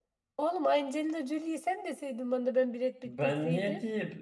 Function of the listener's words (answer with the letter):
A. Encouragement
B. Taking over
B